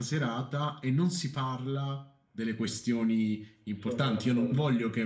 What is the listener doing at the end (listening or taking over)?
listening